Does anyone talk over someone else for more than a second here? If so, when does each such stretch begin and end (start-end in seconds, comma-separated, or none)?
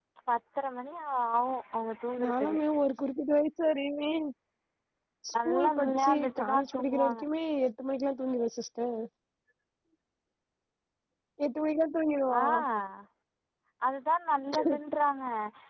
5.4-7.2